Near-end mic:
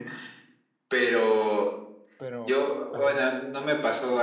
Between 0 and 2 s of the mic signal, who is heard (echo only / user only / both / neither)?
echo only